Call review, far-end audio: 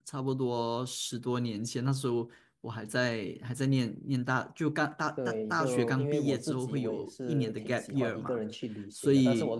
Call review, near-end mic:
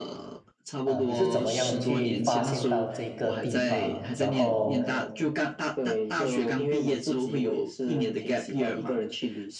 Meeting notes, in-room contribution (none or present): present